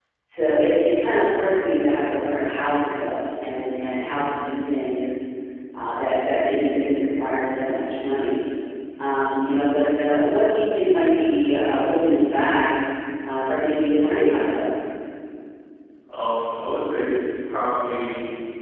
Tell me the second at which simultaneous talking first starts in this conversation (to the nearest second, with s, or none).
none